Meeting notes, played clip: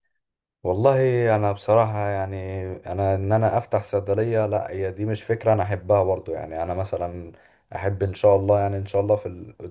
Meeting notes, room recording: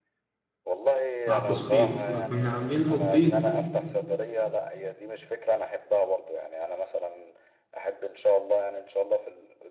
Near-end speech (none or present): present